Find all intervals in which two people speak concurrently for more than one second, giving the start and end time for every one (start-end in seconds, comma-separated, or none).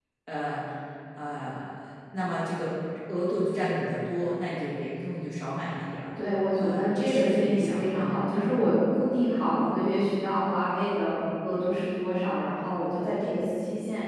6.6-8.3